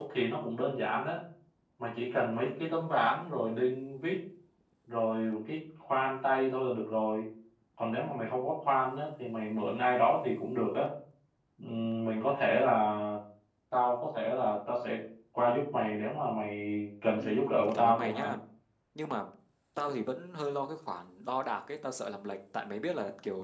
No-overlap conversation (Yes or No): No